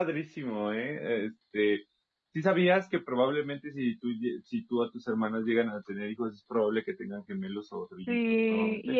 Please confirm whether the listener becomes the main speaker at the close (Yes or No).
Yes